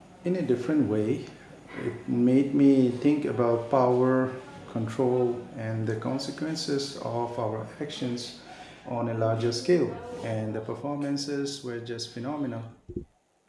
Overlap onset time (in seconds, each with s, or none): none